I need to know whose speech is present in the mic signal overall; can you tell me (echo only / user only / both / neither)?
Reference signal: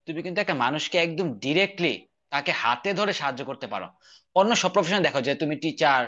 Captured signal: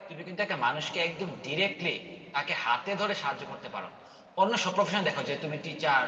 echo only